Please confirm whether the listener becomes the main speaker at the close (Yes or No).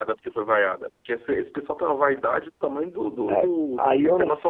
Yes